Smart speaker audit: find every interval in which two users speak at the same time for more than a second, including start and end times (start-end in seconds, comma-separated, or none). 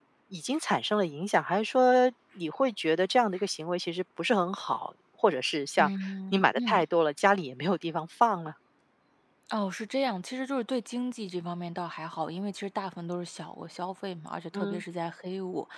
none